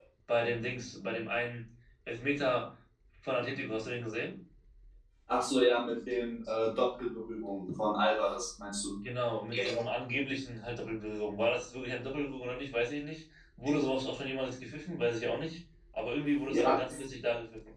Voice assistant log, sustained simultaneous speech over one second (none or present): none